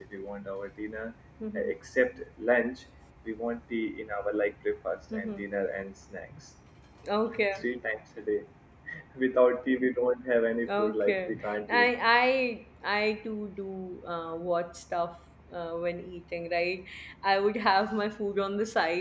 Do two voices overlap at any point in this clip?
Yes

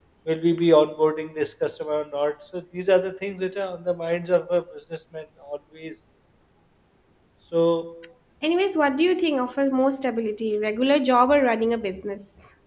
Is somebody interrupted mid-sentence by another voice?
No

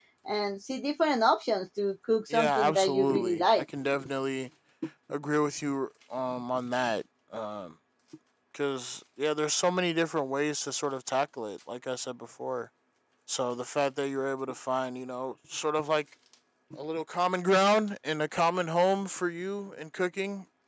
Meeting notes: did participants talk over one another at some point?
Yes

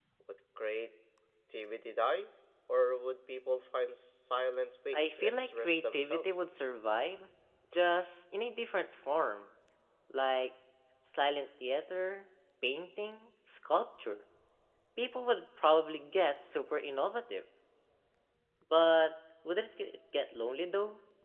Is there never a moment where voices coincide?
No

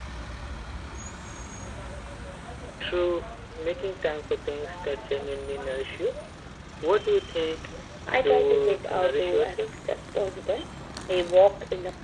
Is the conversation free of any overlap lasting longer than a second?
No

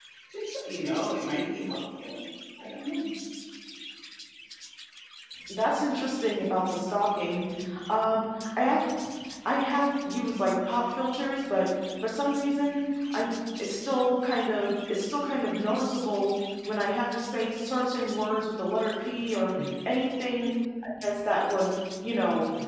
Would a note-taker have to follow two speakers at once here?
No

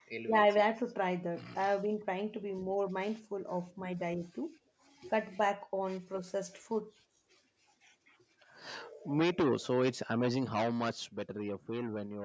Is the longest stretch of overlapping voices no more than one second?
Yes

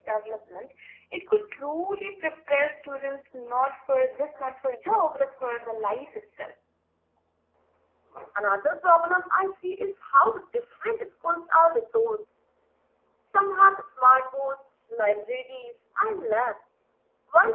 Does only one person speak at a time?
Yes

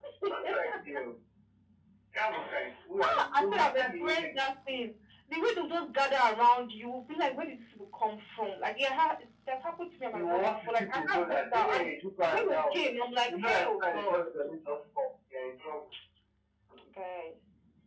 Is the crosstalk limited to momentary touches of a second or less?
No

